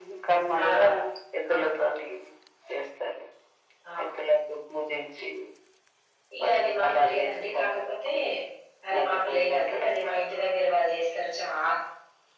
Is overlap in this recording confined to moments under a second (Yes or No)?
No